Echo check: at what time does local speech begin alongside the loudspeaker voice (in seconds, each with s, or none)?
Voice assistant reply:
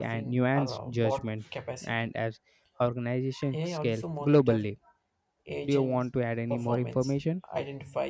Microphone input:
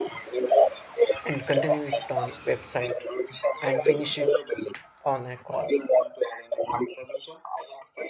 1.2 s